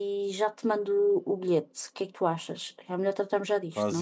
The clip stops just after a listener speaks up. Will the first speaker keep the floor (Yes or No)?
No